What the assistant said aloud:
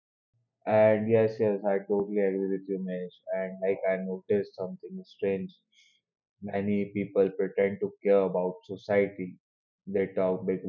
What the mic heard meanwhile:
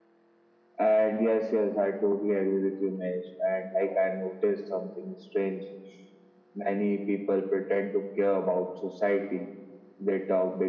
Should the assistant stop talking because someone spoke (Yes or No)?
No